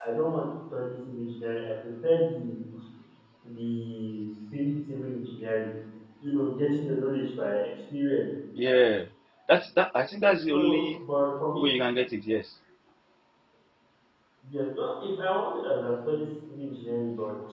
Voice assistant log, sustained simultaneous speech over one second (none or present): none